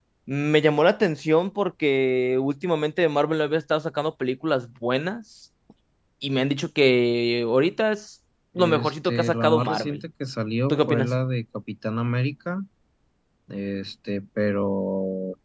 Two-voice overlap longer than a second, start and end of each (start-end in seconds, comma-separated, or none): 8.6-10.0